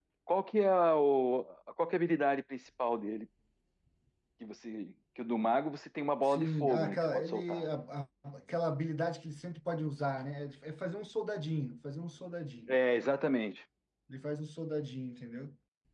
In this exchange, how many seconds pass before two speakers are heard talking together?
6.2 s

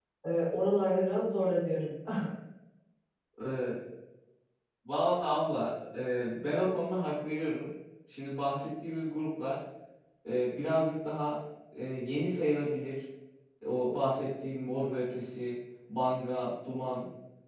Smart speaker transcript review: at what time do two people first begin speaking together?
none

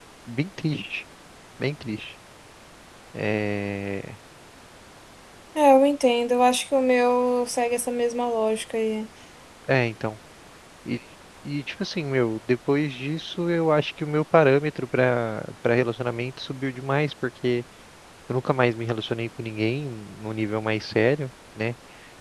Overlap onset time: none

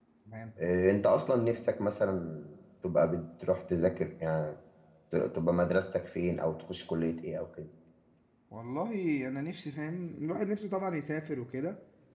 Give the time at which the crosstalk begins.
none

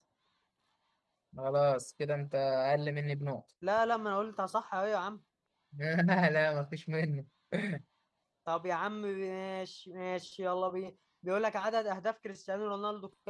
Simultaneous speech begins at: none

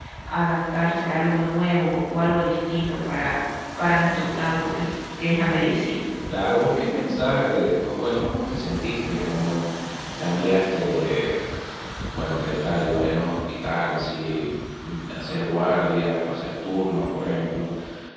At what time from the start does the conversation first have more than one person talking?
none

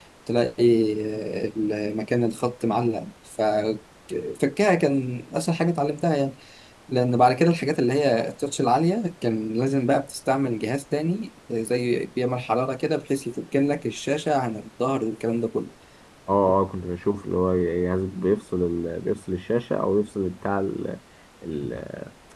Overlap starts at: none

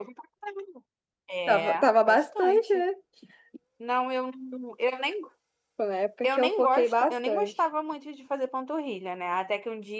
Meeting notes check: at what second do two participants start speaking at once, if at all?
1.5 s

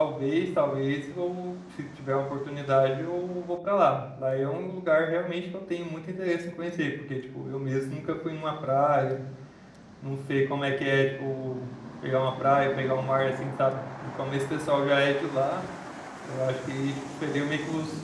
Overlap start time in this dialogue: none

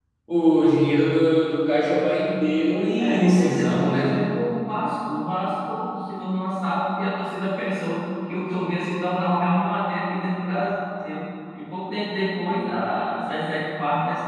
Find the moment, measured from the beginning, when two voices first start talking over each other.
3.0 s

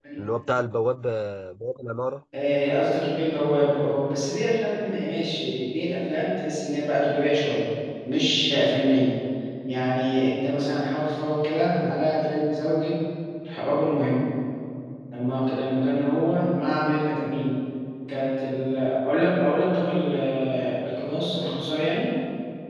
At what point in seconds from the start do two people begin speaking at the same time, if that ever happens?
none

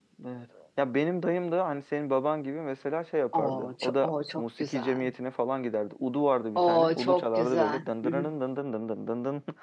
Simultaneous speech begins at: 3.3 s

